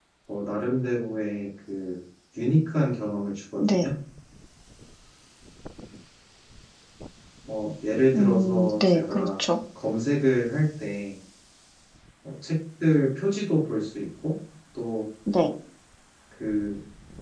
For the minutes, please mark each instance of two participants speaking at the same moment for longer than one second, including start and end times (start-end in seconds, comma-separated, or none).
8.2-9.4